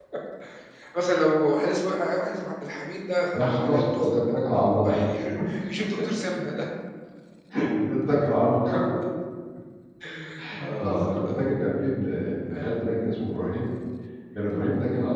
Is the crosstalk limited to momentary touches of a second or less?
No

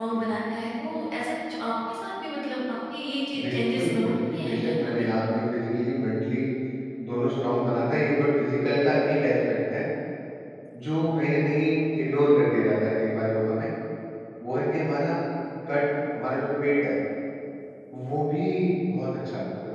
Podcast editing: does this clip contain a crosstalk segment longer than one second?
Yes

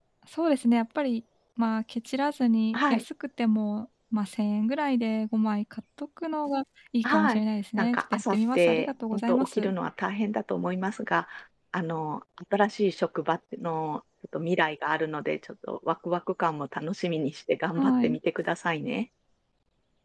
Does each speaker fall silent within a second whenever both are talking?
No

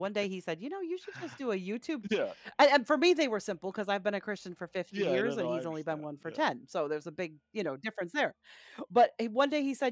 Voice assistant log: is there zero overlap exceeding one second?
No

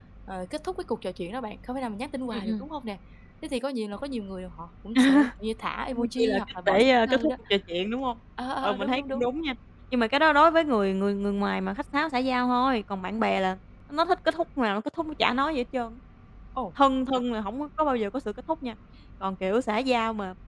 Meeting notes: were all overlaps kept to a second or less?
No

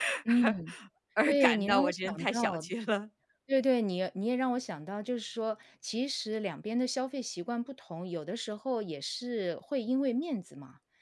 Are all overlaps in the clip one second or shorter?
No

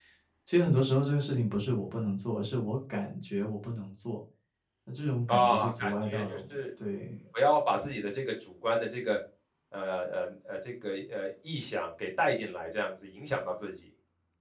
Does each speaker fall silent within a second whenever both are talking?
No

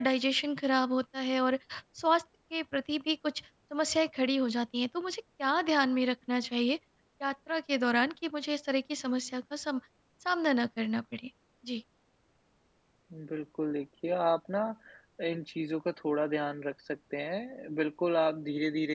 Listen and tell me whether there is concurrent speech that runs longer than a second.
No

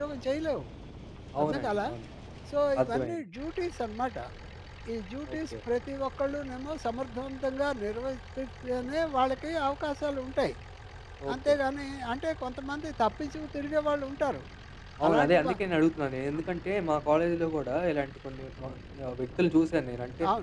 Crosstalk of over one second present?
No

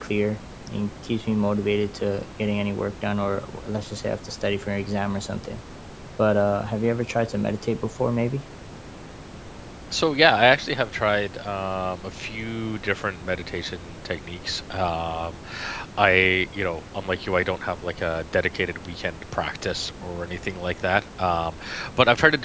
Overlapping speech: No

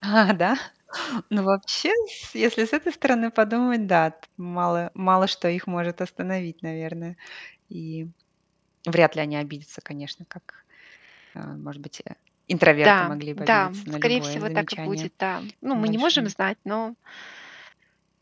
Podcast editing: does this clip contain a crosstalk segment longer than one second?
Yes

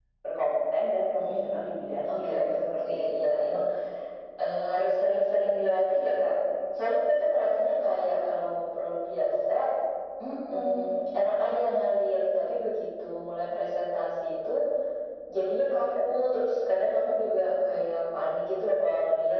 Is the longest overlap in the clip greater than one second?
Yes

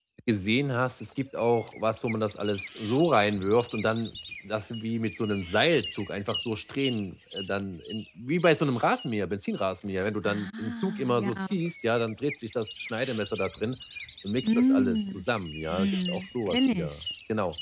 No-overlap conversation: No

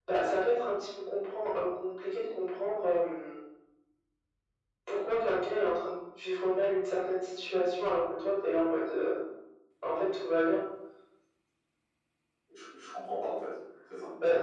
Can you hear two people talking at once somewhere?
No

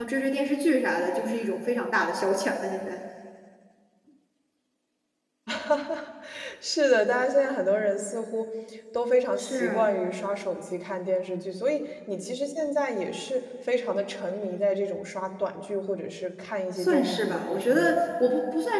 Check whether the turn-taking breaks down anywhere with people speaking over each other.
Yes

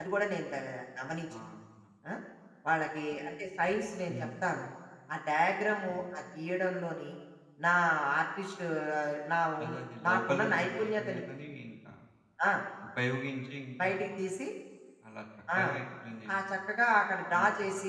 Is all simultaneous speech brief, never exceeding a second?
No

